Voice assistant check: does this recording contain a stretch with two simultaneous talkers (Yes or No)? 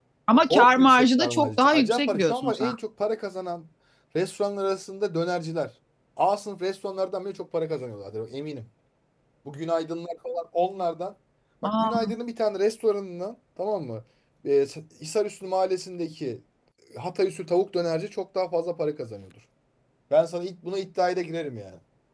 Yes